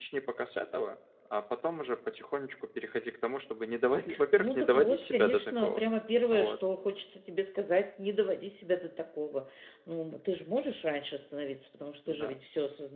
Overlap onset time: 4.4 s

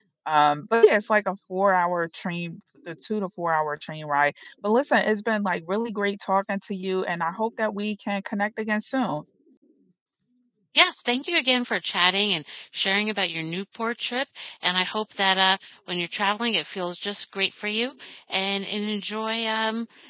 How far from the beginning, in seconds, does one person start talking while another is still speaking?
none

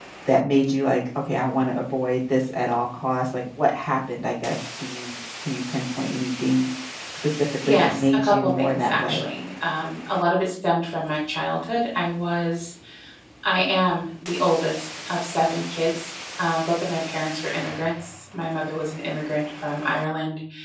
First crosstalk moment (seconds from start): 7.7 s

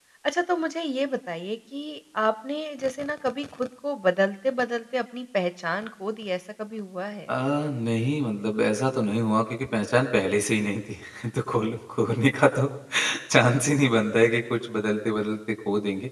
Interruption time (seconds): none

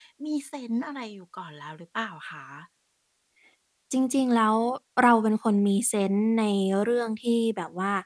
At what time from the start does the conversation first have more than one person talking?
none

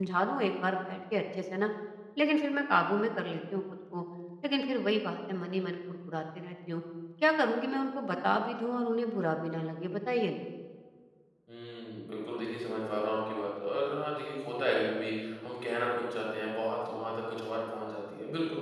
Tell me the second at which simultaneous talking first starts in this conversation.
none

